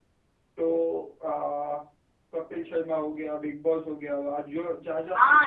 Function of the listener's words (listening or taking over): taking over